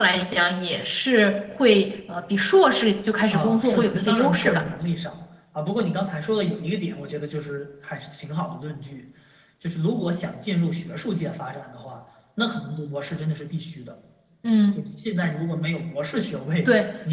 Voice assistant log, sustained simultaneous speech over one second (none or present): present